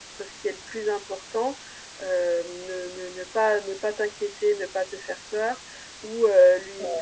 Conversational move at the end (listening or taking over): listening